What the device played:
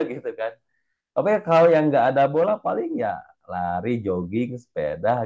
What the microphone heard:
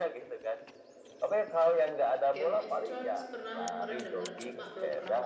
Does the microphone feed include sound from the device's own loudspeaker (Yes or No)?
Yes